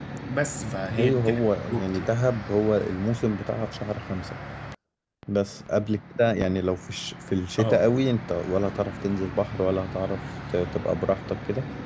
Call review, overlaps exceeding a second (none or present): present